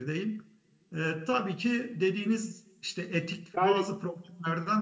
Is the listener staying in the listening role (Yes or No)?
Yes